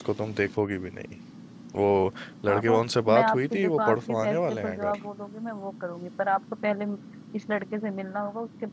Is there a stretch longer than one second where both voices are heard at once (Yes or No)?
Yes